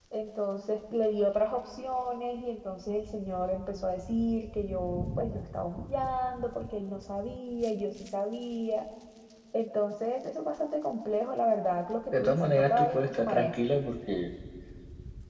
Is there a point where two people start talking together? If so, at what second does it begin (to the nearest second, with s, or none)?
12 s